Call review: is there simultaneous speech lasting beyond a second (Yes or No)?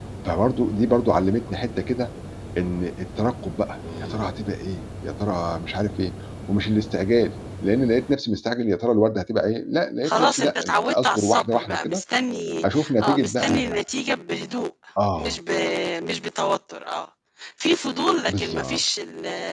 Yes